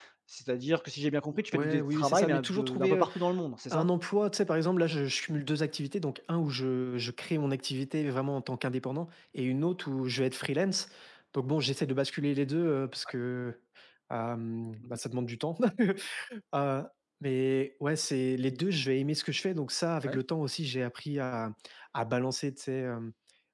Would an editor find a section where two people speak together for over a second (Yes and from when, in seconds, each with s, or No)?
Yes, from 1.5 s